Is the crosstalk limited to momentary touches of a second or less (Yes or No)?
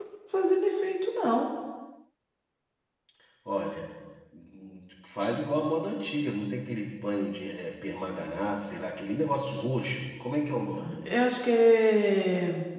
Yes